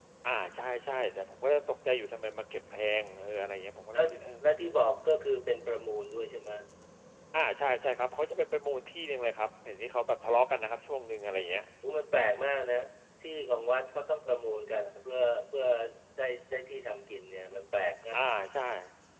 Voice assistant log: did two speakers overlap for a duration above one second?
No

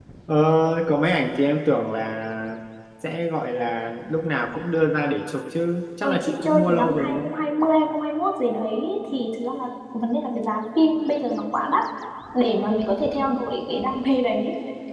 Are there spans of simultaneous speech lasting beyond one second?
Yes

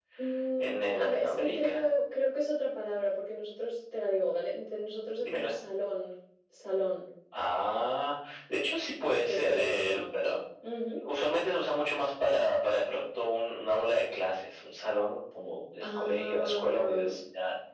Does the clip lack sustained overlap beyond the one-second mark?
No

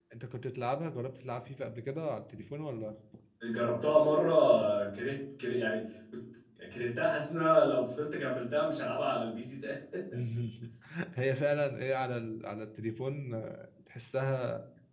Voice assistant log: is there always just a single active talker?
Yes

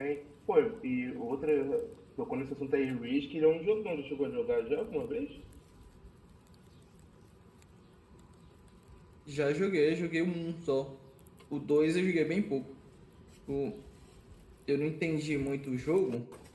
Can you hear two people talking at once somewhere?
No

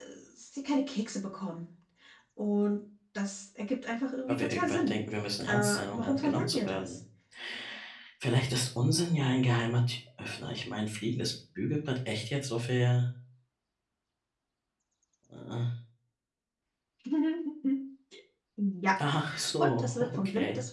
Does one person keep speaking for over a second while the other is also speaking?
Yes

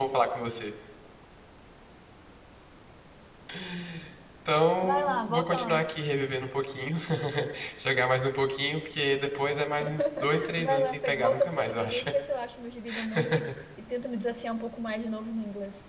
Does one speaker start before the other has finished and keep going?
Yes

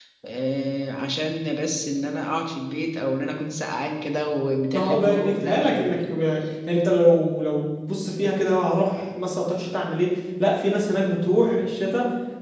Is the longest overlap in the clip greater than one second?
Yes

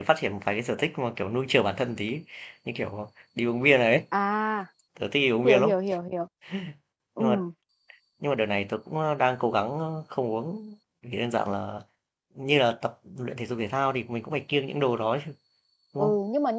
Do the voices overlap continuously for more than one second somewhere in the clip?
No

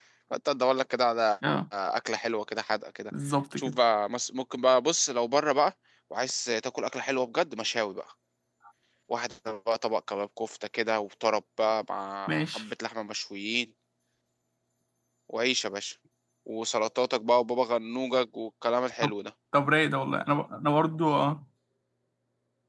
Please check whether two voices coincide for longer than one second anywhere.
No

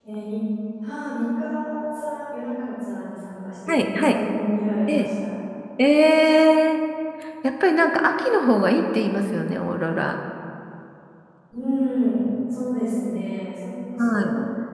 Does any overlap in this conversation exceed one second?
No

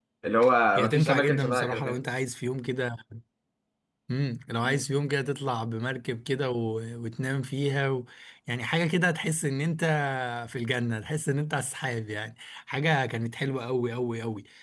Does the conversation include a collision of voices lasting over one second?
Yes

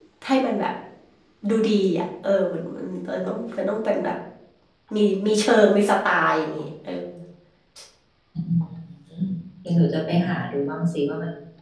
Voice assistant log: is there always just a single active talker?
Yes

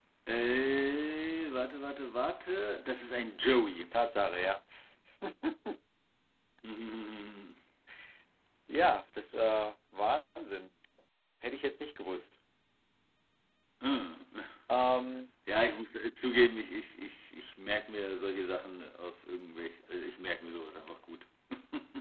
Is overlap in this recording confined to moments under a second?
Yes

